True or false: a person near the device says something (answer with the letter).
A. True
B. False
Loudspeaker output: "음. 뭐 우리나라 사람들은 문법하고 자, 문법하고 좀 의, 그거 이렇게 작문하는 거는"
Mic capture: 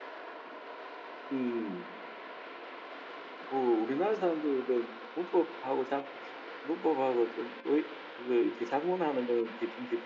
B